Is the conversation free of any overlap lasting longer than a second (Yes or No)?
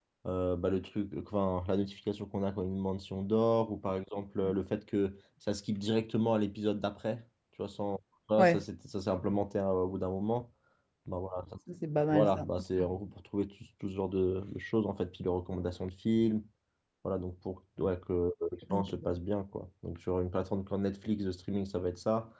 Yes